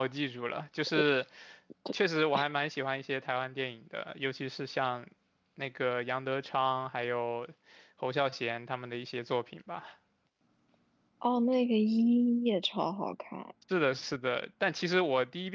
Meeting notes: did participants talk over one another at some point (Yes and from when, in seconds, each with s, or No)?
No